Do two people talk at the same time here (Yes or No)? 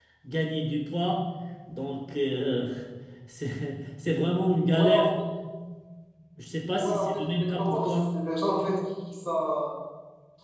Yes